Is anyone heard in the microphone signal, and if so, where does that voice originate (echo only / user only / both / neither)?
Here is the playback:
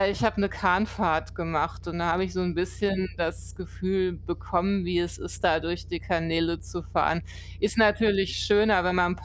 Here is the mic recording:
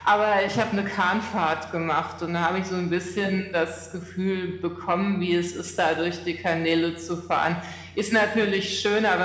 echo only